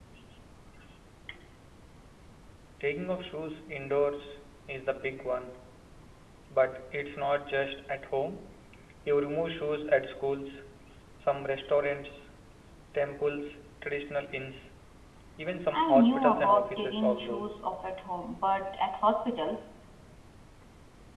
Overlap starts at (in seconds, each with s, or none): 15.7 s